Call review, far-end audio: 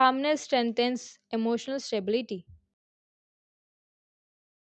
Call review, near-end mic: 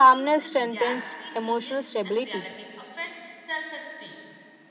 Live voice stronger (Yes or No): No